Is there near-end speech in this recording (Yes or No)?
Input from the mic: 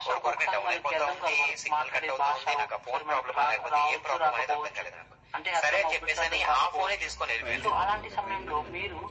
Yes